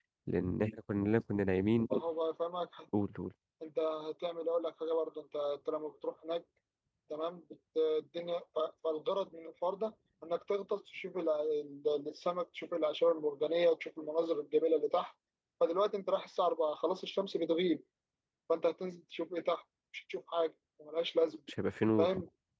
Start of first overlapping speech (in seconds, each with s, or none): none